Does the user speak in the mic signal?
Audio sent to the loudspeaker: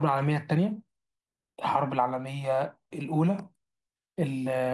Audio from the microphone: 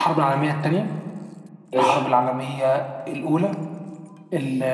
Yes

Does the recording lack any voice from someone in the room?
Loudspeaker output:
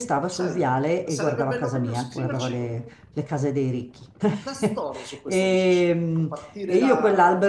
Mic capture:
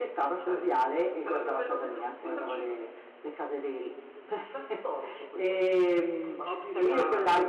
No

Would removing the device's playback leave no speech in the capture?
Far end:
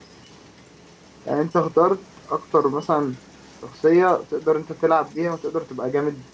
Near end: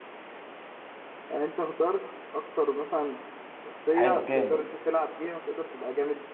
No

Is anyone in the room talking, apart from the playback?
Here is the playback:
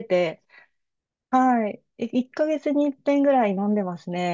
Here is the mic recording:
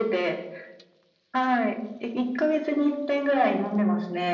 No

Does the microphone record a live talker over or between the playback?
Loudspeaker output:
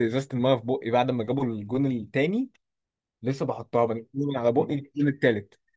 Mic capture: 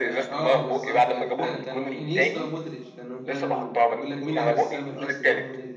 Yes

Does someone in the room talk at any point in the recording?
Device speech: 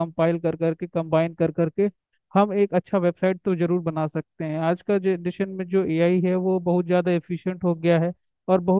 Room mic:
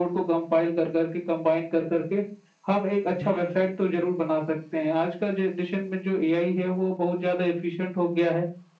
Yes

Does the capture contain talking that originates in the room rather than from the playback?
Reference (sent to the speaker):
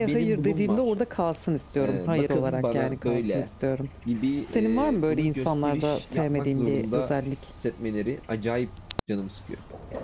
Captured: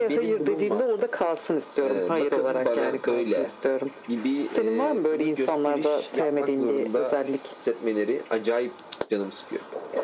No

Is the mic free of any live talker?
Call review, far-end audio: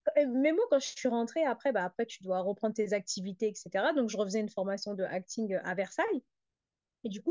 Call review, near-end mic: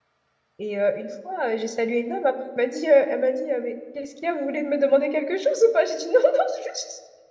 No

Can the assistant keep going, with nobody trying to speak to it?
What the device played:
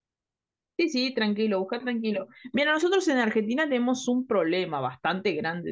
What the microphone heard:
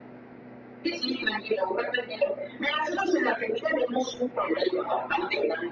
Yes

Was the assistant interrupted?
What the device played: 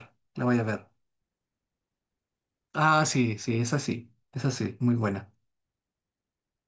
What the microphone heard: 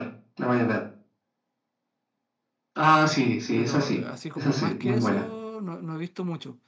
Yes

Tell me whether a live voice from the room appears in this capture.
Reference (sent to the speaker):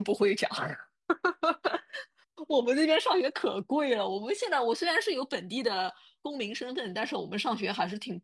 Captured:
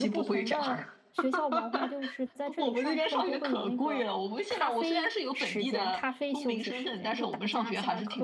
Yes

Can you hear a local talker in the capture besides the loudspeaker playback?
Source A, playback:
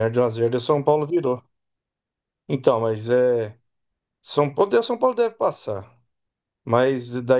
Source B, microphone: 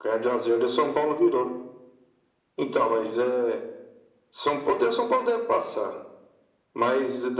No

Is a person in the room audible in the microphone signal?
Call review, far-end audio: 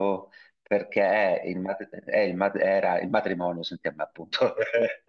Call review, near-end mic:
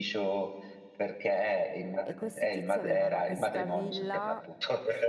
Yes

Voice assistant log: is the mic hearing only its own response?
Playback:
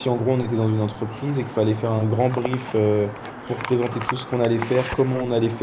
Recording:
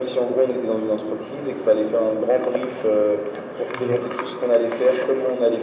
No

